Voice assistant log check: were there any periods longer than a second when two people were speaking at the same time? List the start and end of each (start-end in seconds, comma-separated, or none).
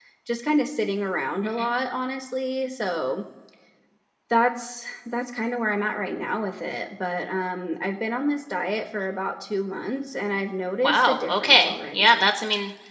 10.8-12.3